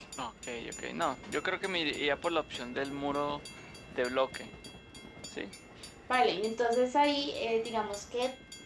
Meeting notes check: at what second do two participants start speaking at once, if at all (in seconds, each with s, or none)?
none